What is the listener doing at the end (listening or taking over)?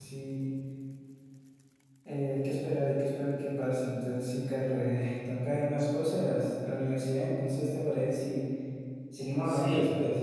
taking over